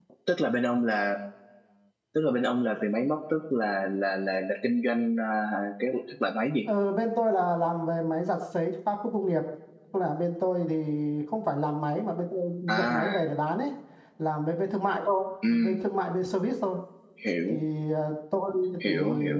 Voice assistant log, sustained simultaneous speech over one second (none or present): none